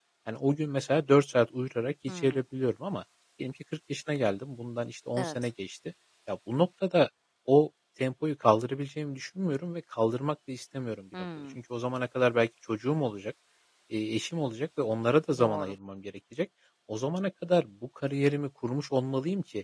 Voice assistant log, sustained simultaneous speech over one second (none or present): none